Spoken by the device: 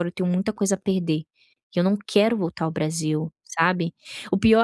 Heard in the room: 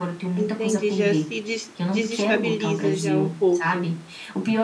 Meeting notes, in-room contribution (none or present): present